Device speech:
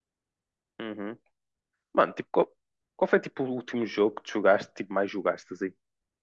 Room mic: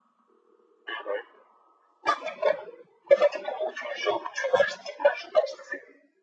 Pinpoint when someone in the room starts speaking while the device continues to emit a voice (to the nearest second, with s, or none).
none